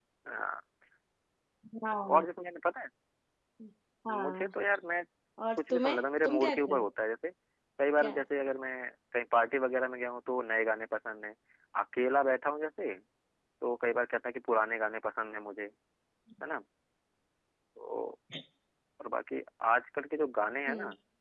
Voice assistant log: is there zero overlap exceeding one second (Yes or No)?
No